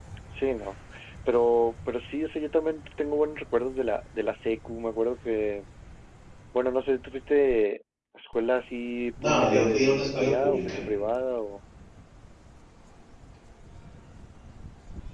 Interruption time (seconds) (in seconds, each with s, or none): 9.2 s